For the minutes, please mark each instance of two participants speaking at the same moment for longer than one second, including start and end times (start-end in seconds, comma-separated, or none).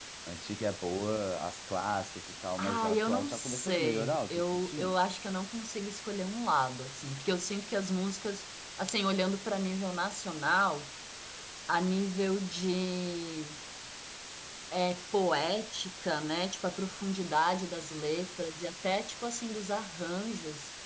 2.6-4.9